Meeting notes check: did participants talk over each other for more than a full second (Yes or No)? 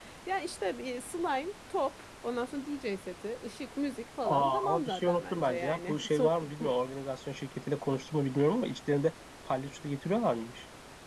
Yes